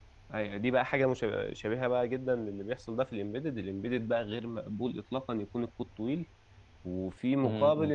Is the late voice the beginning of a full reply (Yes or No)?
No